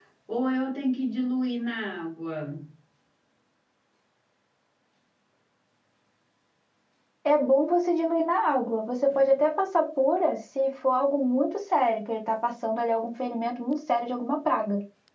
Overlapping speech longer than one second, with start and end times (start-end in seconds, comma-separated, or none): none